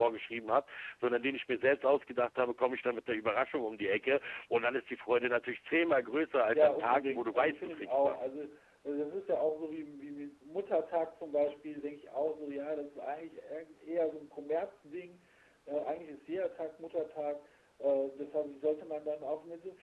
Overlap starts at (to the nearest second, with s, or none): 7 s